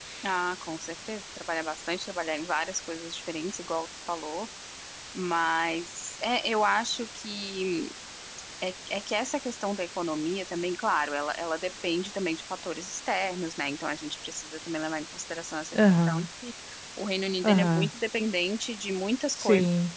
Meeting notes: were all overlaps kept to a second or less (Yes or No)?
Yes